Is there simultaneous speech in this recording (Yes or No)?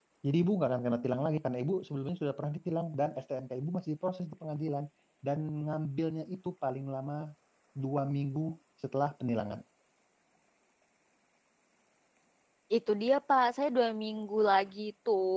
No